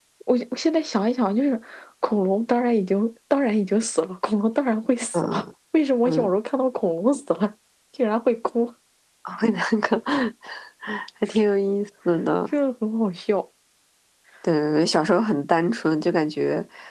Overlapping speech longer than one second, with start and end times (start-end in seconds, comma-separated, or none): none